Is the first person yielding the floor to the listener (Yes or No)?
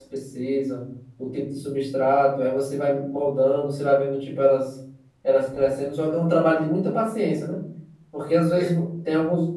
No